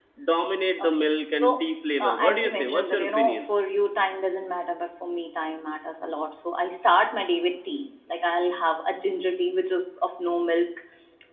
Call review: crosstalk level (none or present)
present